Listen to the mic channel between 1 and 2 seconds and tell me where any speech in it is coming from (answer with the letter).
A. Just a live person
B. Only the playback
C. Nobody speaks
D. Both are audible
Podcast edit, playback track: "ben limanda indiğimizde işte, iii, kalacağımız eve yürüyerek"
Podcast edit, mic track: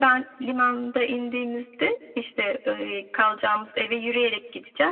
B